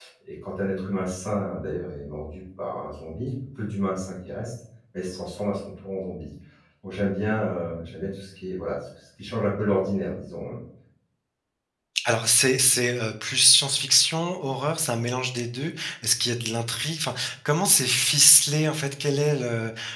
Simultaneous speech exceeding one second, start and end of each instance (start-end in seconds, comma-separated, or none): none